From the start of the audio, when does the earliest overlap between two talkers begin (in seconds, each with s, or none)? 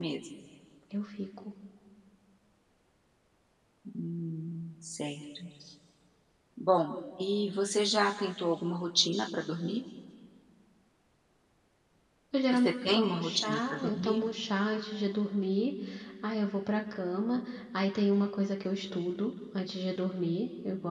12.5 s